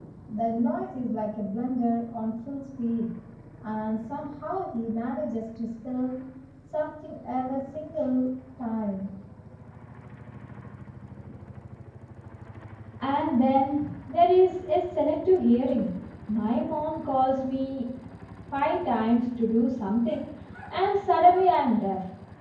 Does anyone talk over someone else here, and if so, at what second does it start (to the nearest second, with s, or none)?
none